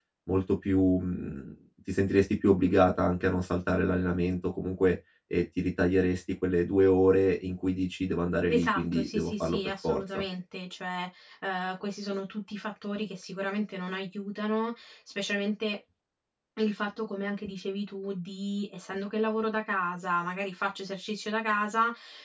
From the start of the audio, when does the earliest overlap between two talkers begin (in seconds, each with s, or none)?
8.5 s